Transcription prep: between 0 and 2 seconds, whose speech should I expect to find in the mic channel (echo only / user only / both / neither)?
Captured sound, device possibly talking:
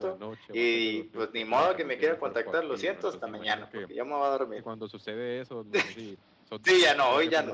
both